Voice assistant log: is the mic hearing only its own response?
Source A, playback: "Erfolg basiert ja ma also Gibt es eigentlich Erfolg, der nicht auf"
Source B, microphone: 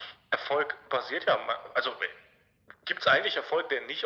Yes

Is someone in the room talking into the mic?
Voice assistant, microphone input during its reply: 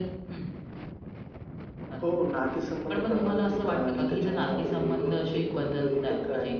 No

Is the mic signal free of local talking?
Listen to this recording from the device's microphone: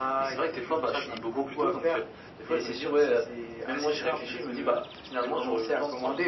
Yes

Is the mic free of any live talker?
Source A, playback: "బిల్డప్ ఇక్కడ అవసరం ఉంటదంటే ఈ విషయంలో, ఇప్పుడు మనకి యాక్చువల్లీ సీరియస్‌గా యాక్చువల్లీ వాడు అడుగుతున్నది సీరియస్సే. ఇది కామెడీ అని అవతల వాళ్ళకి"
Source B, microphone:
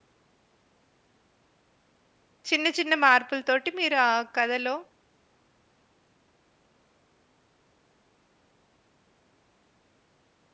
No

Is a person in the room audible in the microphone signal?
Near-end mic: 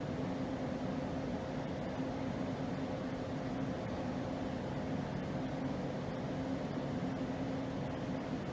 No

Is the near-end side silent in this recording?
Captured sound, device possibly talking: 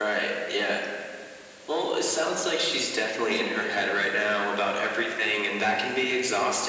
No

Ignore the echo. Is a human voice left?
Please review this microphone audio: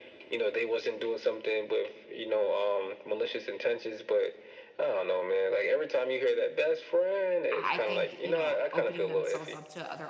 Yes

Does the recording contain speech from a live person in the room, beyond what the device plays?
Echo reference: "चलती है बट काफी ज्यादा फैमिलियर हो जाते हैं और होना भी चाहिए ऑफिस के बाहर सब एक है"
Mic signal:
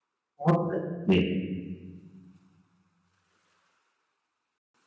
Yes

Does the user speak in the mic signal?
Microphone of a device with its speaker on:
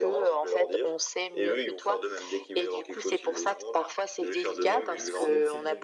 Yes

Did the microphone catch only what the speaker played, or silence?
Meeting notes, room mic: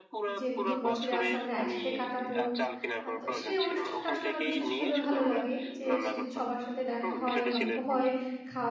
No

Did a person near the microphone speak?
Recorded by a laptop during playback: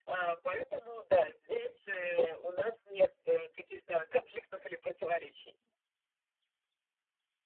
No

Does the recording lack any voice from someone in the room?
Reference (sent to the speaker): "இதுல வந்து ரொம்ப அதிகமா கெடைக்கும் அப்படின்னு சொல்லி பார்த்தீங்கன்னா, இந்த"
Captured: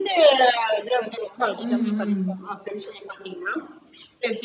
No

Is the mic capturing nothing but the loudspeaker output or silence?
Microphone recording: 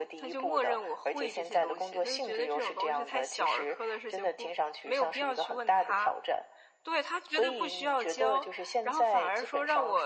Yes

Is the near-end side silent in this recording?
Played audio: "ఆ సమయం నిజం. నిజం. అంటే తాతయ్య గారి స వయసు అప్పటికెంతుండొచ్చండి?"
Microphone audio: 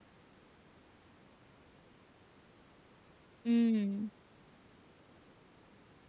No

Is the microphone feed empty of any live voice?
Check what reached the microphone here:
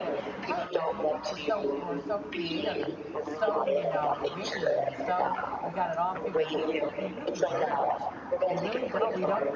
No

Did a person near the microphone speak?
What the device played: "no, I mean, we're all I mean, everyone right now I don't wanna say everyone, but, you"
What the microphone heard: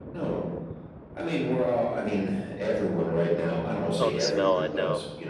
Yes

